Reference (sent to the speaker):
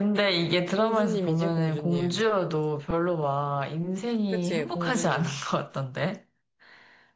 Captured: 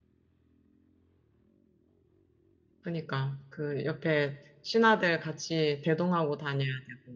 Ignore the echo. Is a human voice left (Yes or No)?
Yes